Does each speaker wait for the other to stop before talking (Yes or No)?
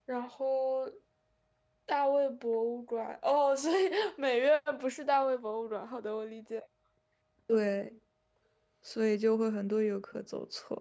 Yes